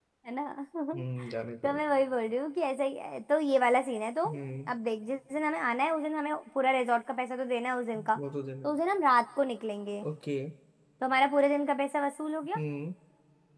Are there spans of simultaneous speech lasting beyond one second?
No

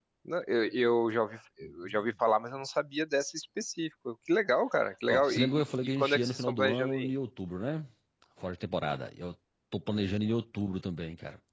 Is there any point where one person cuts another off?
Yes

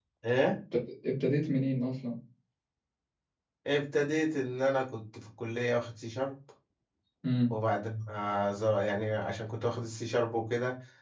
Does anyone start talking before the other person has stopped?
No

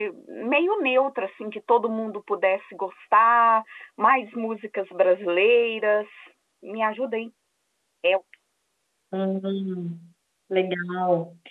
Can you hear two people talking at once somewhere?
No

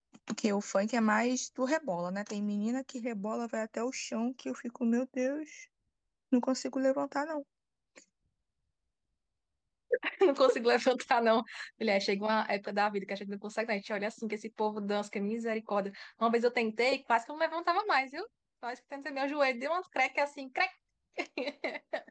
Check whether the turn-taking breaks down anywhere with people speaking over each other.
No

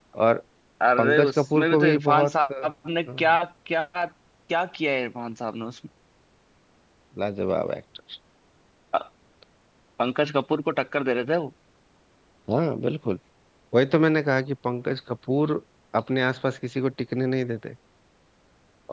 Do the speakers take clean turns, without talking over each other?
No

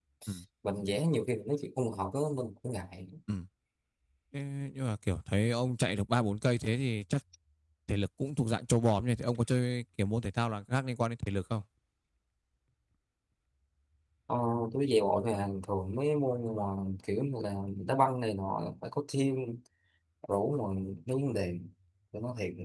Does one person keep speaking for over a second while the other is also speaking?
No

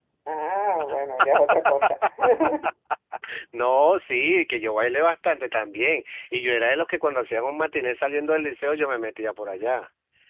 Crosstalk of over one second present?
No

